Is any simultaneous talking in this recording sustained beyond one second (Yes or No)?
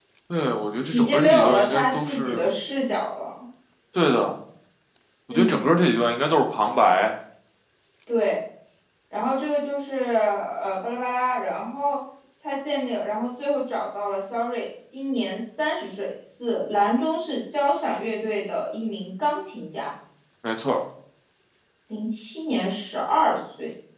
Yes